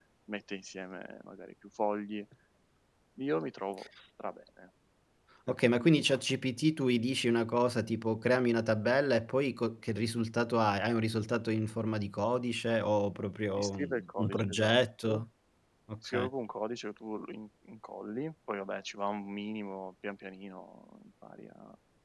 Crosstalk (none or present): present